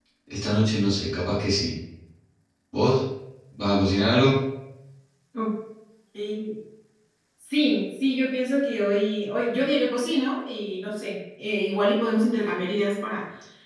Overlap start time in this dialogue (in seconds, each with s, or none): none